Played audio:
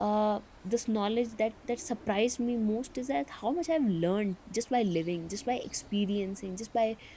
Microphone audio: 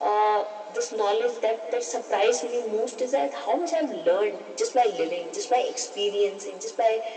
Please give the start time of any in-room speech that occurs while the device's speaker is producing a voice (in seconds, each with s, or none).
none